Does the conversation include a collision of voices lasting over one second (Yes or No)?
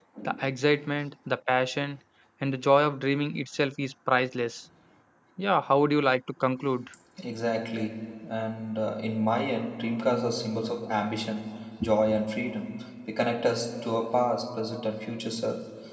No